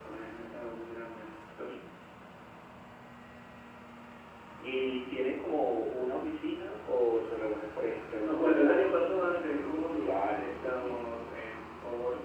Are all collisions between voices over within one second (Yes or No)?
No